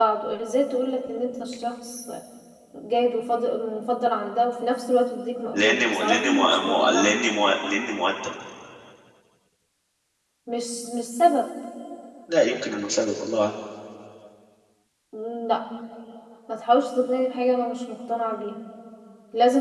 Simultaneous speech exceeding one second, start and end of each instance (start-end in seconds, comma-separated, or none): 5.5-7.2